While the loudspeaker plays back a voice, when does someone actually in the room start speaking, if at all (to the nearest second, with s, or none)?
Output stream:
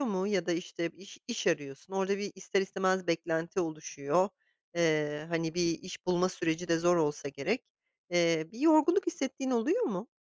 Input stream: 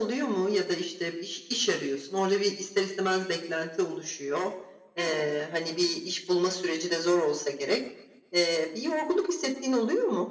5 s